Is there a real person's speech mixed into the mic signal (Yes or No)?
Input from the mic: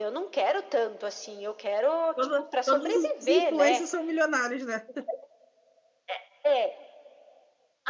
Yes